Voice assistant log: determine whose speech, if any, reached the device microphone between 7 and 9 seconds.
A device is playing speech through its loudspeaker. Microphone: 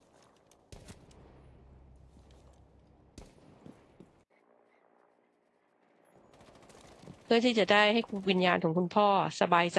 user only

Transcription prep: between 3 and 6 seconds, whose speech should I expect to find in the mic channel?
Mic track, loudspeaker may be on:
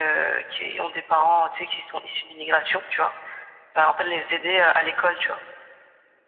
echo only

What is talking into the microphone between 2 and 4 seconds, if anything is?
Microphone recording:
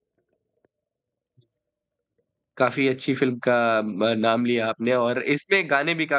user only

